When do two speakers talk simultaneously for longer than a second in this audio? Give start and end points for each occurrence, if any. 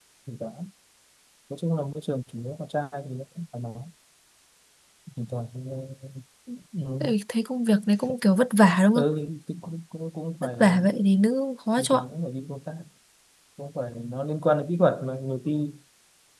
none

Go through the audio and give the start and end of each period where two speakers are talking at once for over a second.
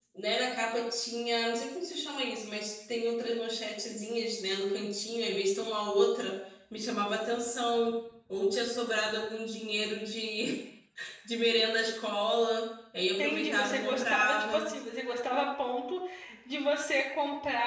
13.2-14.7

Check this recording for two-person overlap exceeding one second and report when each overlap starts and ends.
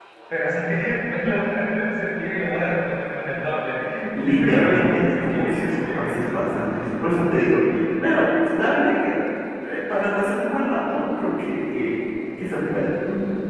4.2-6.5

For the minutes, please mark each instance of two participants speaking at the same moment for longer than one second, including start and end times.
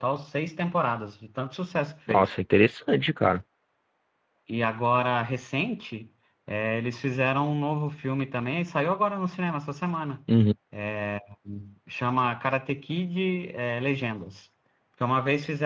none

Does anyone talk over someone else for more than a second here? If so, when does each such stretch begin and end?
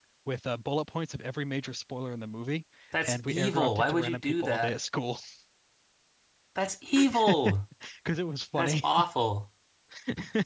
3.1-4.8

